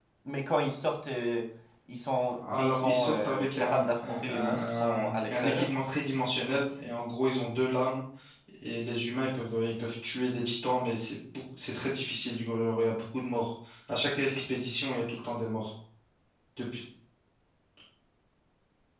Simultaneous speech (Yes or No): Yes